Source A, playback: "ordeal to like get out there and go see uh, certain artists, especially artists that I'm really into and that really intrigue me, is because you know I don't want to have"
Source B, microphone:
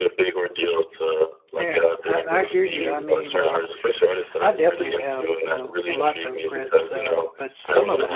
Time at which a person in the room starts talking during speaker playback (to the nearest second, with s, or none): 2 s